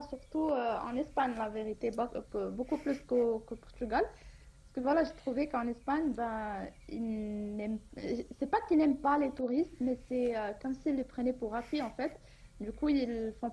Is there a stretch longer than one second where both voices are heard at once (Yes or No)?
No